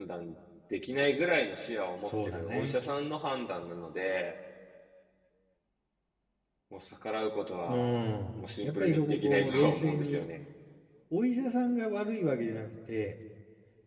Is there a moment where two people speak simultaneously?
Yes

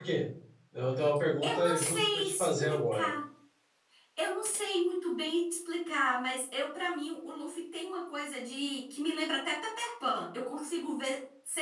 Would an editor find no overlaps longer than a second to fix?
No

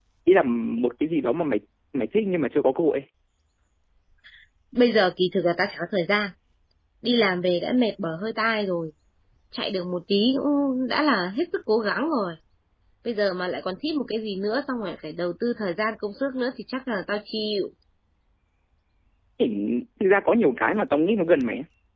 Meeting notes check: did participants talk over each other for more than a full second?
No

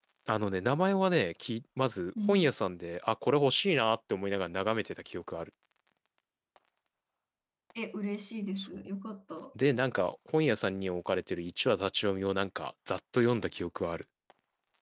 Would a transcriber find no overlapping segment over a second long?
Yes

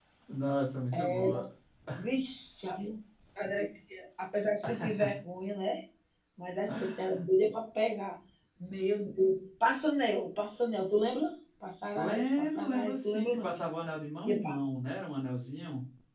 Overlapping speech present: Yes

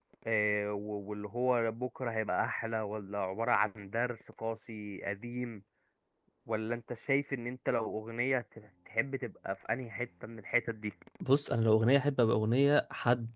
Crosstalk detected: No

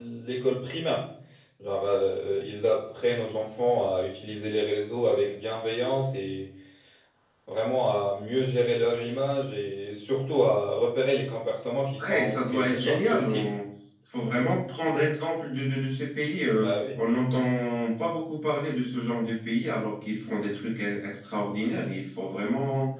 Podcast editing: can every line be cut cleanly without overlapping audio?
No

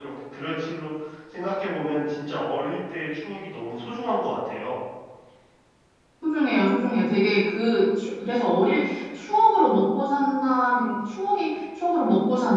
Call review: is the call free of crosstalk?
Yes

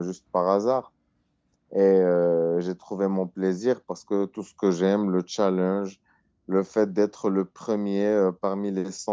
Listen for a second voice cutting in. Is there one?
No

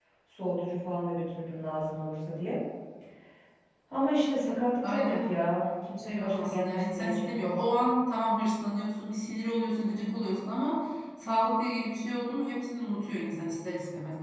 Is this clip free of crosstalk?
No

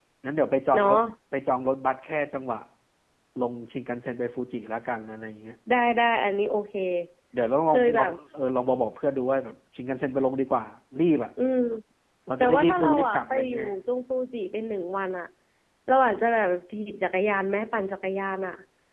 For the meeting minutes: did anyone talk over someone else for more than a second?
Yes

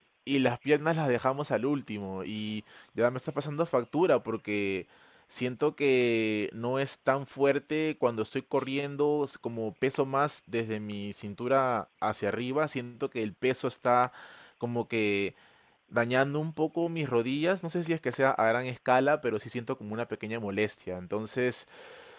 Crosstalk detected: No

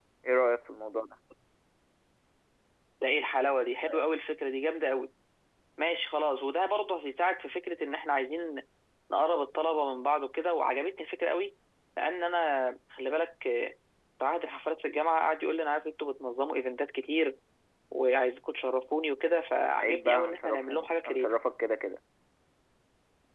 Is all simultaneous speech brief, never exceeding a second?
No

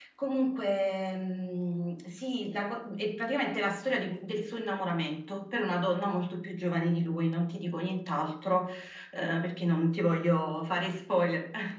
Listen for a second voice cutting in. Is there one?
No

